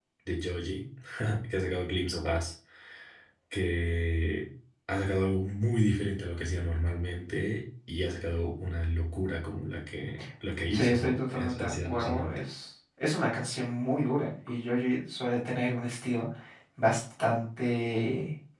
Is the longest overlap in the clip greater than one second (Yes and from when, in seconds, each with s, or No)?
Yes, from 10.7 s